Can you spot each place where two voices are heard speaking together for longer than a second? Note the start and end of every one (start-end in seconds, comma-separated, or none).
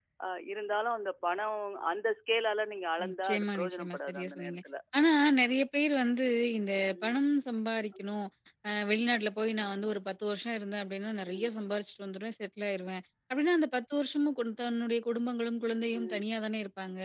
3.0-4.6